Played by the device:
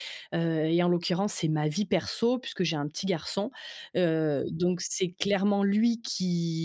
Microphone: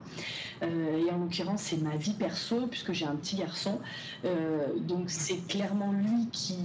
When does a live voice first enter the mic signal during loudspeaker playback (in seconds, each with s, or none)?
none